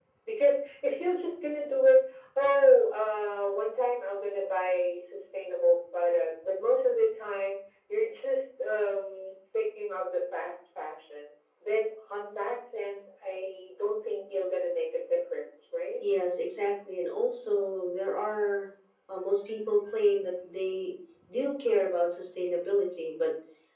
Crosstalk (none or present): none